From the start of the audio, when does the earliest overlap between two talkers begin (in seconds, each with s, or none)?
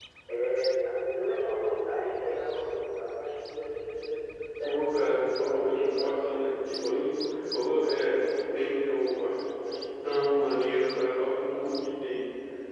4.6 s